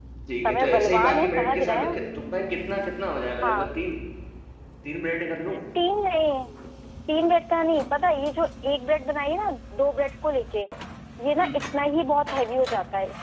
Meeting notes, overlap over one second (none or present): present